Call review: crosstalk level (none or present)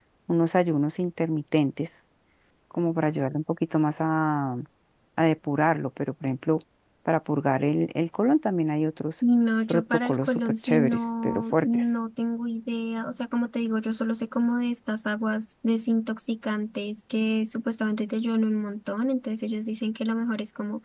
present